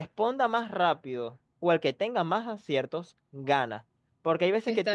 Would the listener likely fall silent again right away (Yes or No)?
Yes